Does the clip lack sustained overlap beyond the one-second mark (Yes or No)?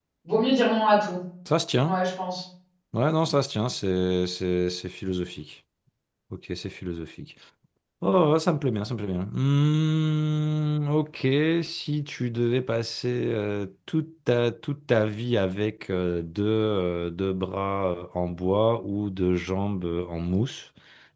Yes